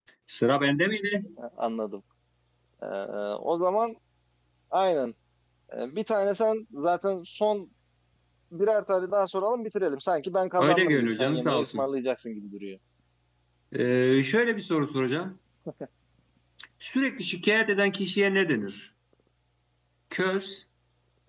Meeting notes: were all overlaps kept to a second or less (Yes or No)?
No